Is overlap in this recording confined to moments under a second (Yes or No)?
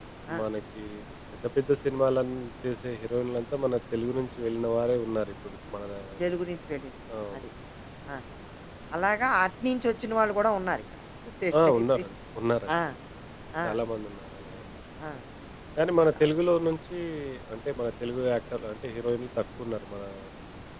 Yes